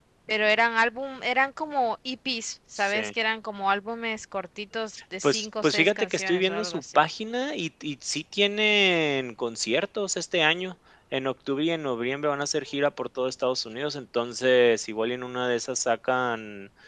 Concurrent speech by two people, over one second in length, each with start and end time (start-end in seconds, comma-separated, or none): 5.2-7.0